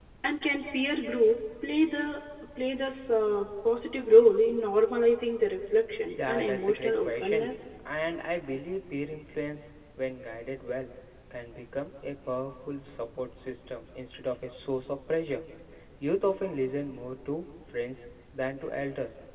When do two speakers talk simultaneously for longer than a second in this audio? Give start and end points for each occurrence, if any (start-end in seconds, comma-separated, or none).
6.3-7.5